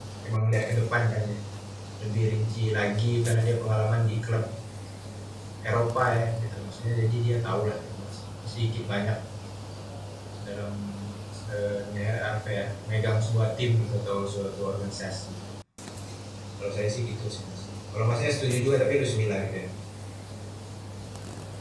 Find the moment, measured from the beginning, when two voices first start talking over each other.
none

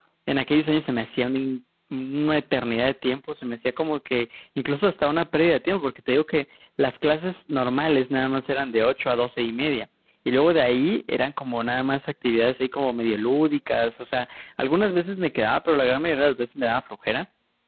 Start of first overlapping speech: none

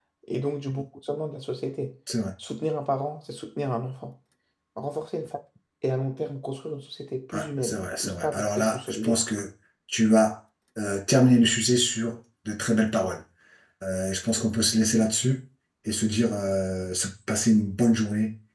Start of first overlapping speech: 7 s

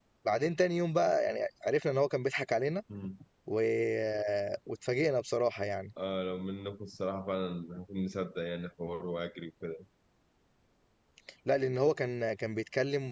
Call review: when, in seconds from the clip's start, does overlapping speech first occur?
none

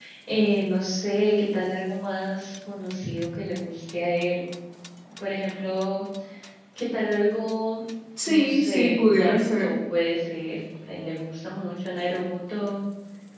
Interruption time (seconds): 8 s

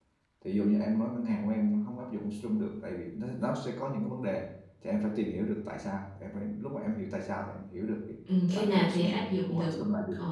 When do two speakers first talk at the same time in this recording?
9 s

